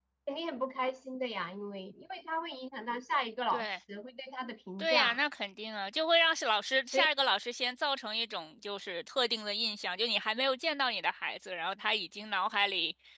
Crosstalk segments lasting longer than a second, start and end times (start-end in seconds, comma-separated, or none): none